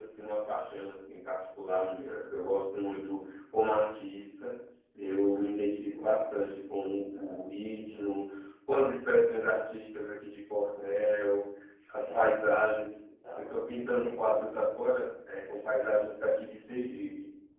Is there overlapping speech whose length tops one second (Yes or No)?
Yes